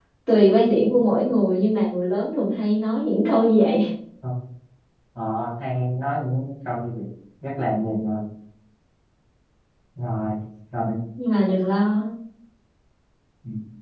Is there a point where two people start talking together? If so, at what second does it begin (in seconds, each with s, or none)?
none